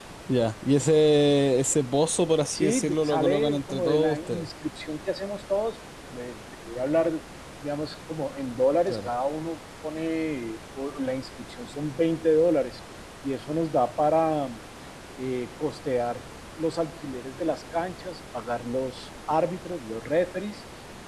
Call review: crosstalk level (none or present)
present